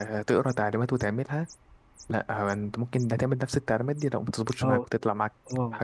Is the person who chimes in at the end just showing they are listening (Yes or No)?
No